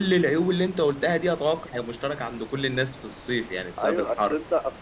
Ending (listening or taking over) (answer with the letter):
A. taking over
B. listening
A